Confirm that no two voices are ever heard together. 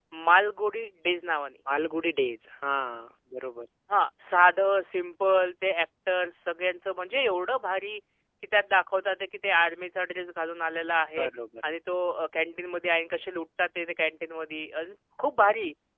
Yes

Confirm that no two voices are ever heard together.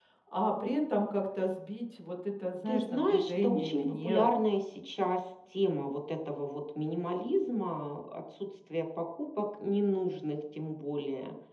No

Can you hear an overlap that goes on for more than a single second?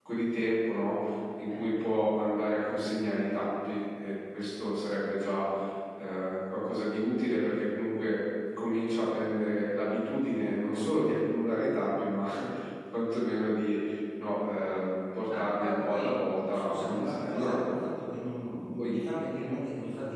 Yes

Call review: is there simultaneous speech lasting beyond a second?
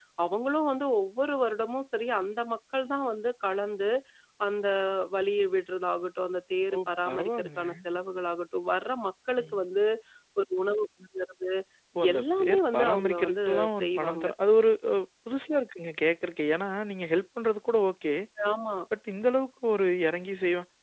Yes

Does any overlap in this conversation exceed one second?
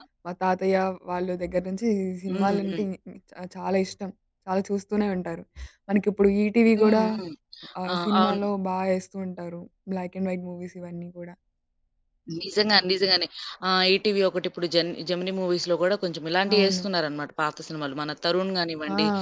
No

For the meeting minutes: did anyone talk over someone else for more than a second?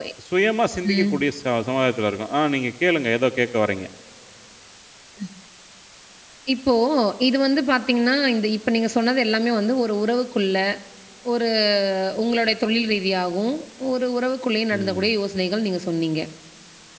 No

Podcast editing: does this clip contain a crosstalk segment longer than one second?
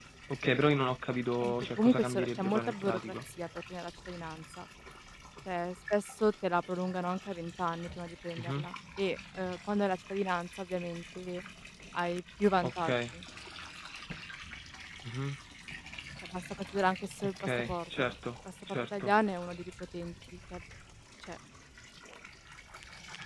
Yes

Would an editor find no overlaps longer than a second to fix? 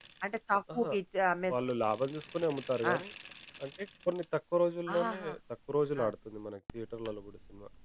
Yes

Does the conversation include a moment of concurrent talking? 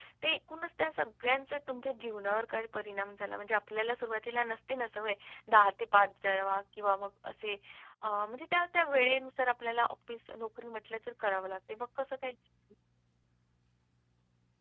No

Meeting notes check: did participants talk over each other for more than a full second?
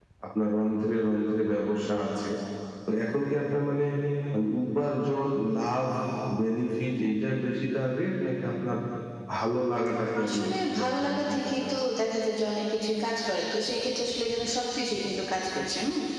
Yes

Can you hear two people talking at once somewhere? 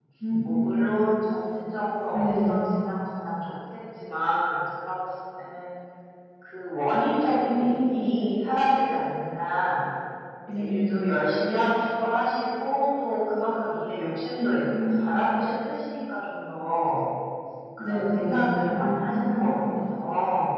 Yes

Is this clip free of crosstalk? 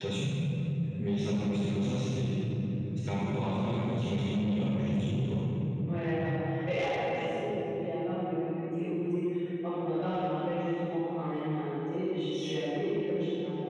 Yes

